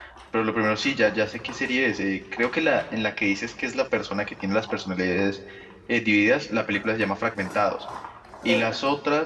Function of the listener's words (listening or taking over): listening